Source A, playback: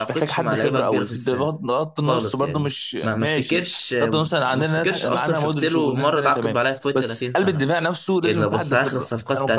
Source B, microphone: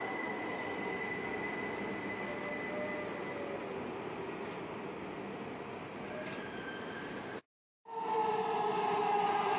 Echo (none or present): none